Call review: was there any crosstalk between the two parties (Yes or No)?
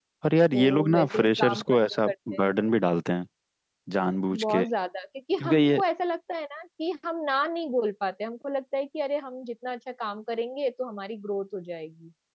Yes